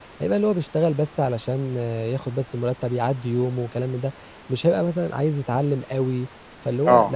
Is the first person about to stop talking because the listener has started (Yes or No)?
Yes